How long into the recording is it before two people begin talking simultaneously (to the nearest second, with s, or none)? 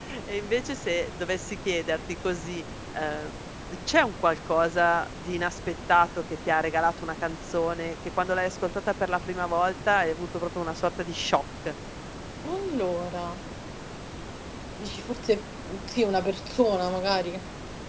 none